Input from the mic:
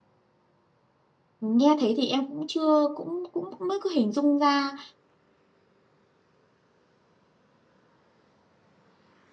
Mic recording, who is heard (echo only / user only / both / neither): user only